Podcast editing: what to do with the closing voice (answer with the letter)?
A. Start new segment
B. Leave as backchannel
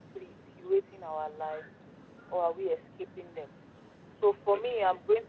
B